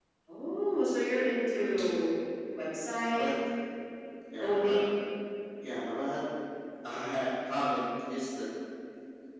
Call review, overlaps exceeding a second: none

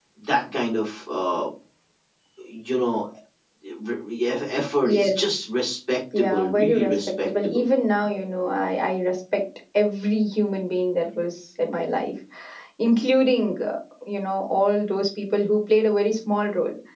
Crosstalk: present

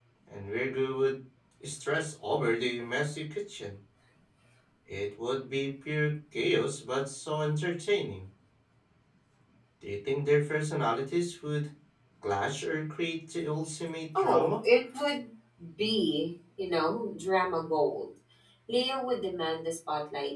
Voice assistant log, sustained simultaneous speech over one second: none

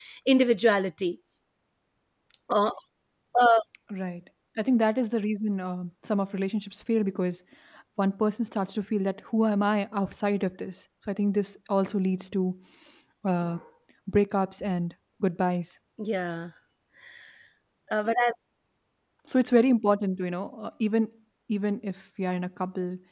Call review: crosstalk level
none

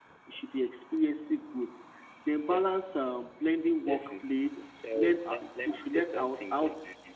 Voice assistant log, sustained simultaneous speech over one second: present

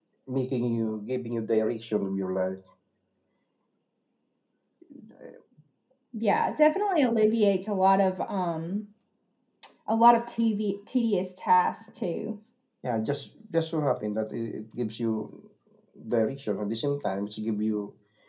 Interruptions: none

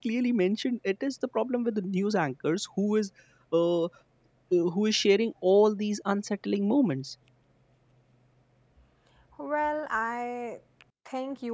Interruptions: none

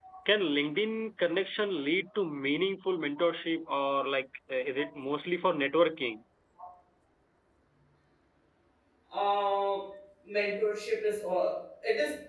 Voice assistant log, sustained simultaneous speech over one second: none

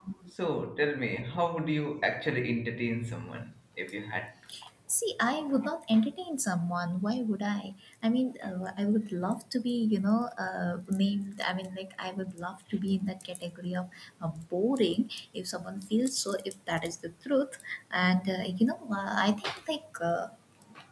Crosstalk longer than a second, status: none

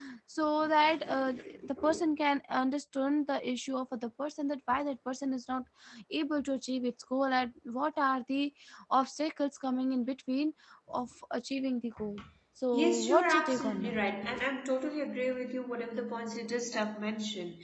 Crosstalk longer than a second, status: present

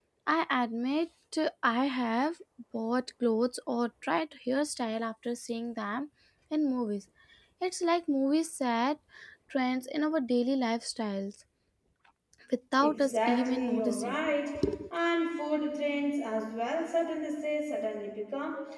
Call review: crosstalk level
present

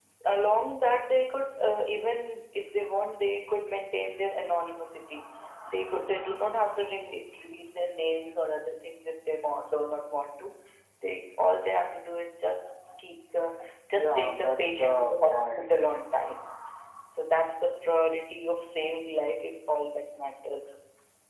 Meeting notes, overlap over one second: present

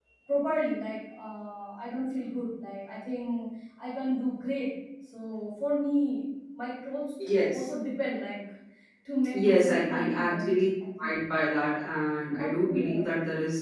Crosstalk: present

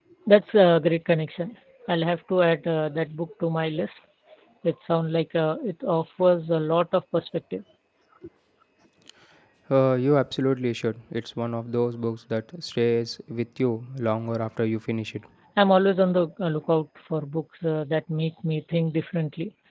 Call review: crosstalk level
none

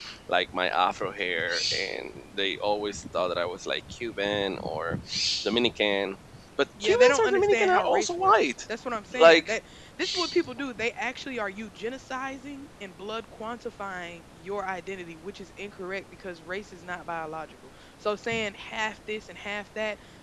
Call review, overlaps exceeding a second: present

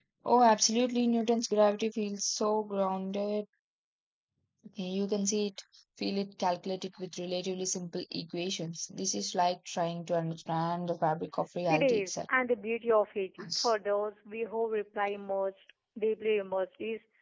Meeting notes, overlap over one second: none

